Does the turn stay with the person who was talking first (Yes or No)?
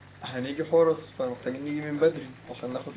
Yes